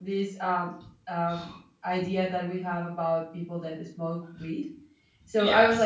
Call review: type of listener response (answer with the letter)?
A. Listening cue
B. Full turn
A